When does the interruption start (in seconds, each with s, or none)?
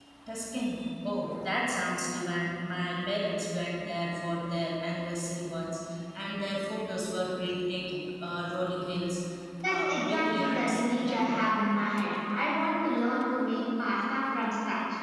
9.6 s